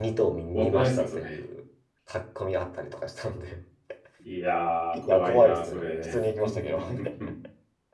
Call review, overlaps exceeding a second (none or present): present